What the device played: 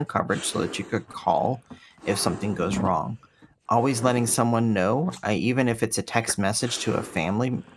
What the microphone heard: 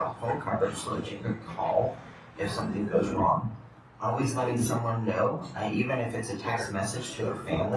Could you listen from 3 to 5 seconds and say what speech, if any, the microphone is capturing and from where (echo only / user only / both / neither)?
echo only